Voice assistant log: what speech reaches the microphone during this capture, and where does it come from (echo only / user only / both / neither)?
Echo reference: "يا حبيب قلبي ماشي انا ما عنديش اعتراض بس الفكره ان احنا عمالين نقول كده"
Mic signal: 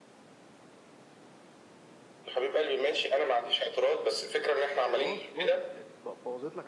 both